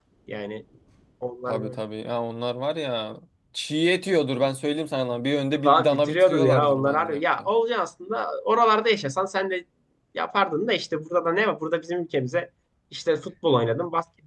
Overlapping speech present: Yes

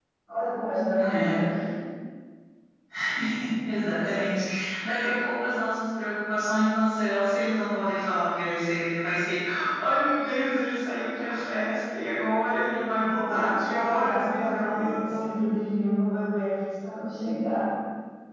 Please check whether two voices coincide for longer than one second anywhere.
Yes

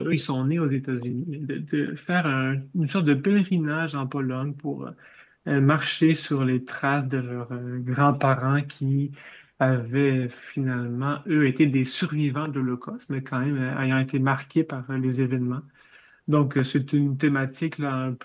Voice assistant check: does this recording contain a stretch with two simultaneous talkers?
No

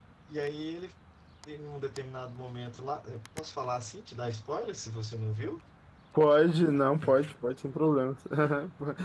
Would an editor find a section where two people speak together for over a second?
No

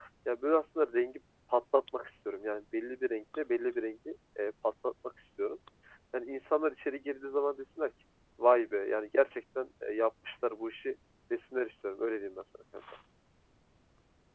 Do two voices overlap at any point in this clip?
No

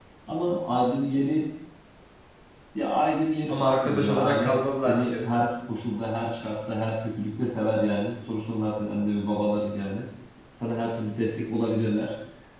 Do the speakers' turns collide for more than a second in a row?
Yes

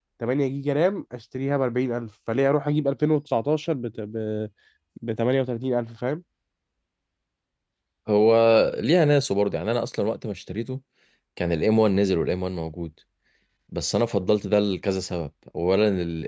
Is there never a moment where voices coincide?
Yes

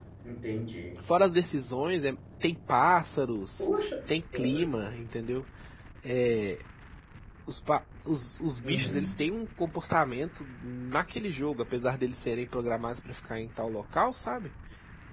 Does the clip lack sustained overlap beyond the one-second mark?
Yes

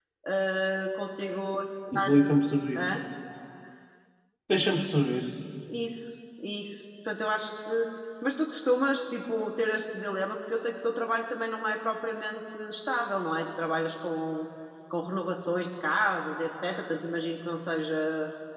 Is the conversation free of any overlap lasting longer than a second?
Yes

